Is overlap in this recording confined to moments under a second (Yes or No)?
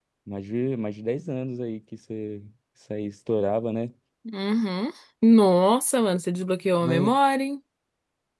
Yes